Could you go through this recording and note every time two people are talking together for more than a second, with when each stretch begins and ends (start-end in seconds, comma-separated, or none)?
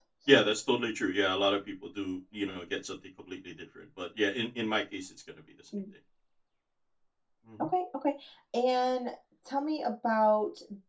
none